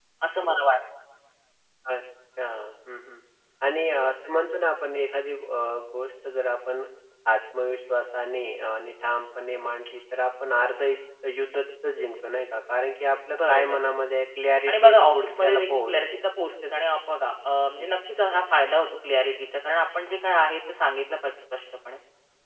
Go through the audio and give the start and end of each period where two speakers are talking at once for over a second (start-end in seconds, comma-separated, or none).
14.7-16.0